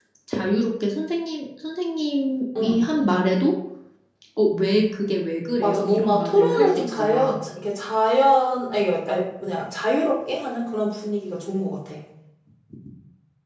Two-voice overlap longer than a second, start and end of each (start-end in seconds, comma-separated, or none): 5.6-7.3